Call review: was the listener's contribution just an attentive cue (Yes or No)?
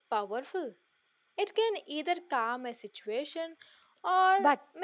No